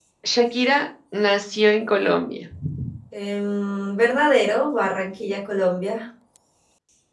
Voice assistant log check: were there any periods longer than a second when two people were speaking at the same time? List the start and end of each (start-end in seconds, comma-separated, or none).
none